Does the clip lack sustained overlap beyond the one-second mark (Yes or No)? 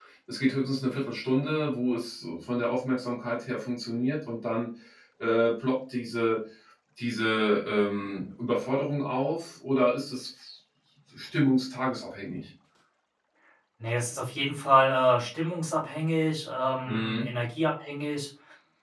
Yes